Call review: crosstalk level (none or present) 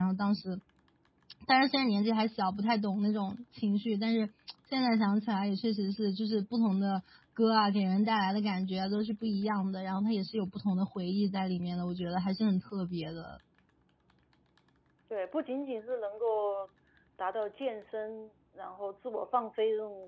none